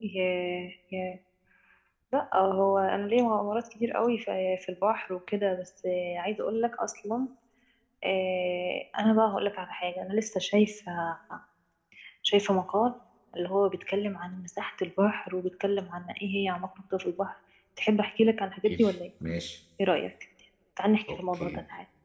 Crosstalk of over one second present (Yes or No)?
No